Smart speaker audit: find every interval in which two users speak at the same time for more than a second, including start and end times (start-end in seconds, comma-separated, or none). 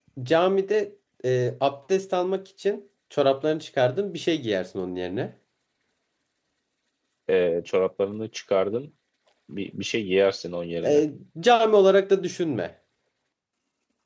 none